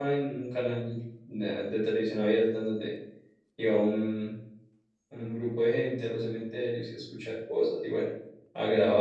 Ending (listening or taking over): taking over